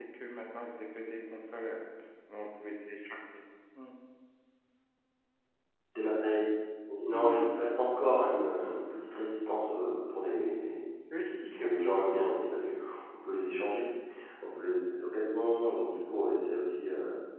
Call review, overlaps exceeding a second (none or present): none